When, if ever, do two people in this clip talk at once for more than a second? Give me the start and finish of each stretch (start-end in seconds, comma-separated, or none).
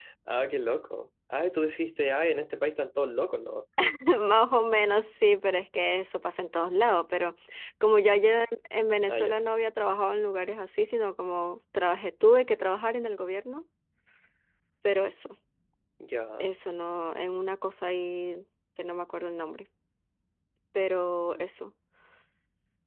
none